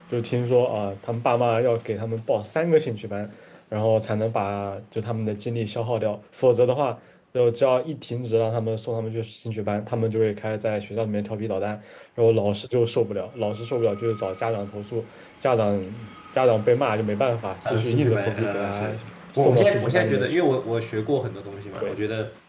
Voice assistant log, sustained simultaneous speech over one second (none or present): present